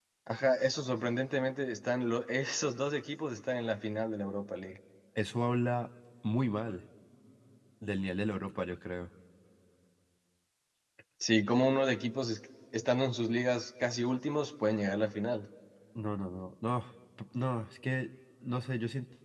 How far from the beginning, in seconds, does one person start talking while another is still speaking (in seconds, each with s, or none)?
none